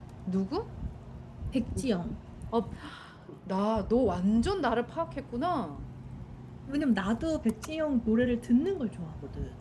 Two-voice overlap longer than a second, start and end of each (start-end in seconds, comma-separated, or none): none